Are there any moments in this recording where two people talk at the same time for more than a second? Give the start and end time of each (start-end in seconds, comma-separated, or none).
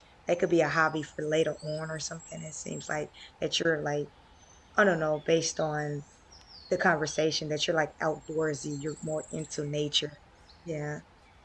none